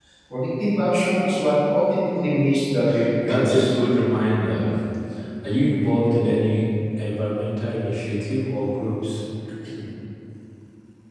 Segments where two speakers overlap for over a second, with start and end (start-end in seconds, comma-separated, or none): none